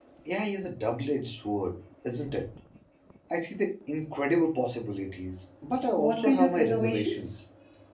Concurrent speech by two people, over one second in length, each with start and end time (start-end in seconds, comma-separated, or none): 6.0-7.3